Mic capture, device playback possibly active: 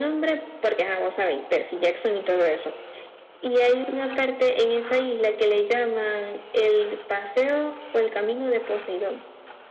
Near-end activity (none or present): none